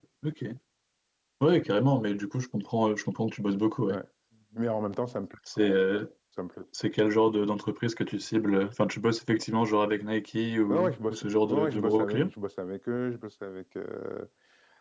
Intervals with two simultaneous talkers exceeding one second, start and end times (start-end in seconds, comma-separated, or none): 10.7-12.3